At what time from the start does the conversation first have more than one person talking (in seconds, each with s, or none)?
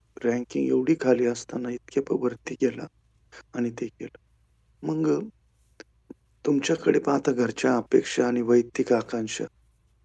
none